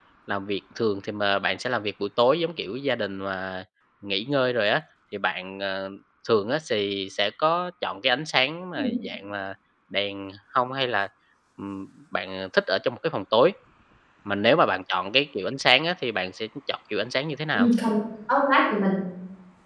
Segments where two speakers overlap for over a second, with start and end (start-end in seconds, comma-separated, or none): none